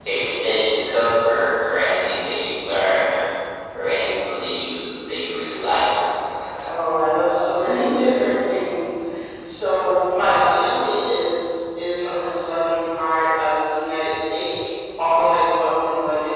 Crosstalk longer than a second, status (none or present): none